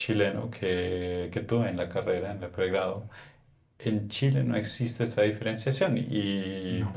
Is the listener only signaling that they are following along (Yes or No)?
Yes